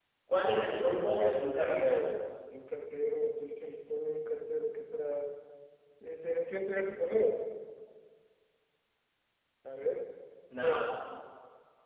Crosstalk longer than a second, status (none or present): present